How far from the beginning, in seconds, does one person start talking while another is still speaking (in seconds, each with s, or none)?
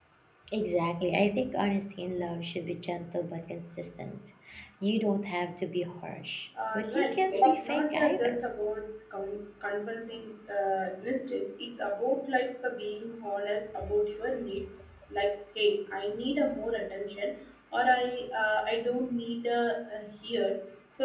6.6 s